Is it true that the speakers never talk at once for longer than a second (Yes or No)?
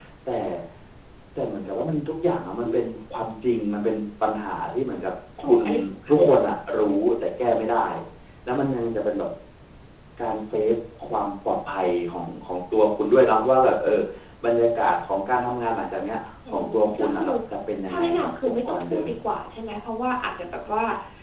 No